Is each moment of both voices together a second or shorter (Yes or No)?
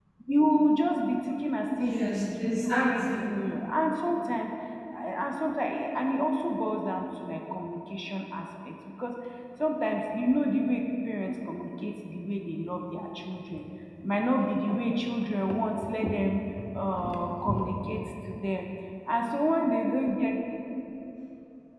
No